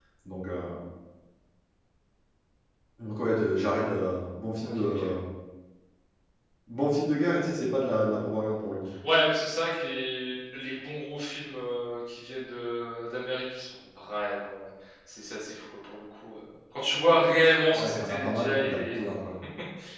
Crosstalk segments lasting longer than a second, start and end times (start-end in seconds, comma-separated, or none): 17.7-19.0